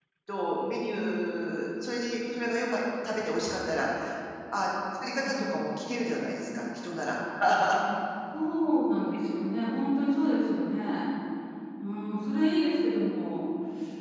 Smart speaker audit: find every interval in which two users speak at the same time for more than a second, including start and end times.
none

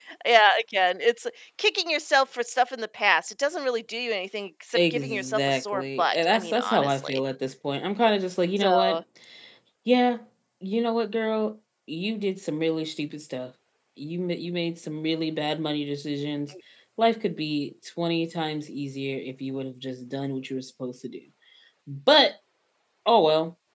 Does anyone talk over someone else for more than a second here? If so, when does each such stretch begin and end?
4.9-7.2

